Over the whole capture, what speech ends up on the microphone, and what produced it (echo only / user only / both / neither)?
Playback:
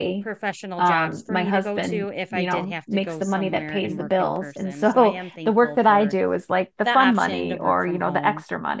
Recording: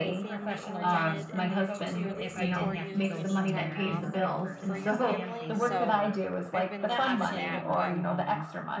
both